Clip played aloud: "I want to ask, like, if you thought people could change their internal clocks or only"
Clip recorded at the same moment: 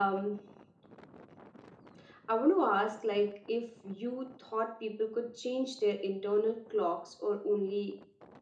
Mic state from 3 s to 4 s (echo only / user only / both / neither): echo only